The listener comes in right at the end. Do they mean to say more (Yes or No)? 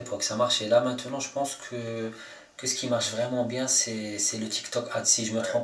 Yes